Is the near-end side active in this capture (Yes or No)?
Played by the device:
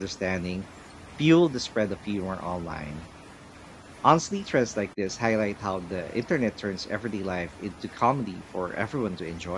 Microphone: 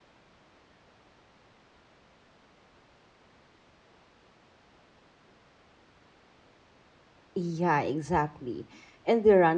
Yes